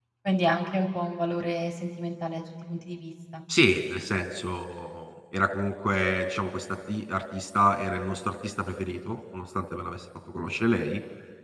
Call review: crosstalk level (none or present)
none